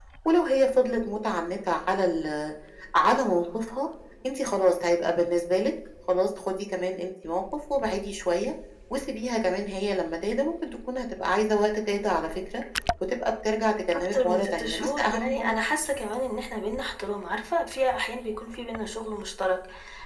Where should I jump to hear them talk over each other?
14.1 s

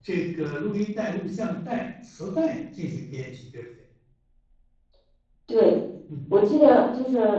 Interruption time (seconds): none

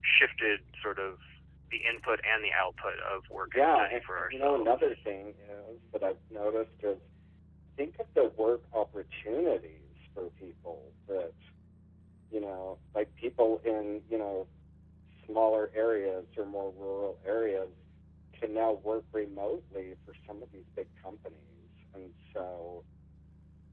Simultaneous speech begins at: 3.5 s

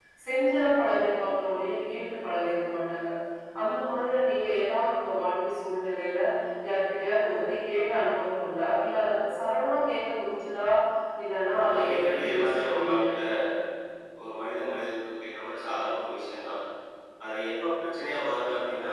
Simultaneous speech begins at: 11.7 s

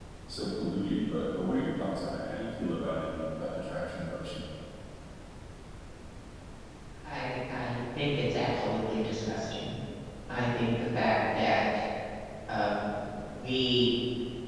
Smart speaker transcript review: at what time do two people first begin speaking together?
none

